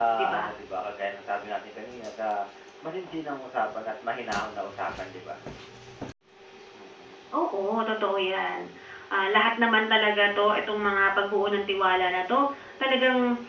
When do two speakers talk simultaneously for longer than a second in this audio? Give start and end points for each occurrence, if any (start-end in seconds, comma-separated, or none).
none